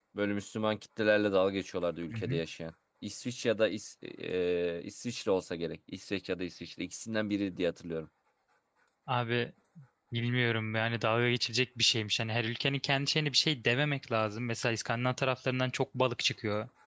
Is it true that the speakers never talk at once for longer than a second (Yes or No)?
Yes